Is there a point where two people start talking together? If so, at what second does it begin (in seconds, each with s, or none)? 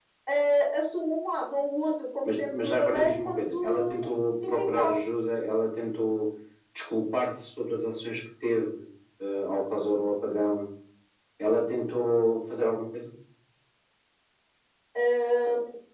2.2 s